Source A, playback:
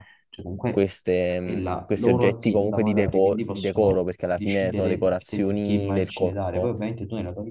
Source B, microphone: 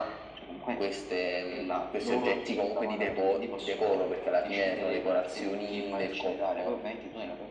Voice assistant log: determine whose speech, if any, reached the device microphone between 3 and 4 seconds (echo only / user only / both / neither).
echo only